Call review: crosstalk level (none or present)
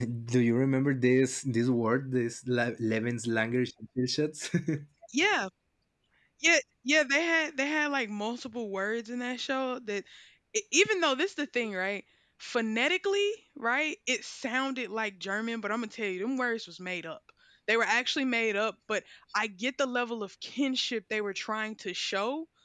none